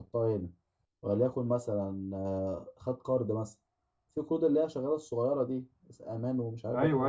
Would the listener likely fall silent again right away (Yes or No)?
No